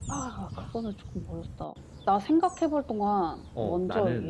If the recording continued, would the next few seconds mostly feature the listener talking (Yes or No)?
Yes